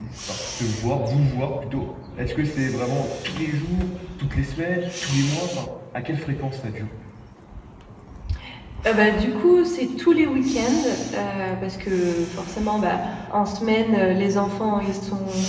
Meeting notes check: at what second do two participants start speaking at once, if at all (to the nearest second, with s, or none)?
none